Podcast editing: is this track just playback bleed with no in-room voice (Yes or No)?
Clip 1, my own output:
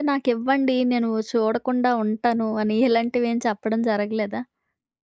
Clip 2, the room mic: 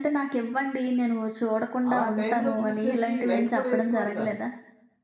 No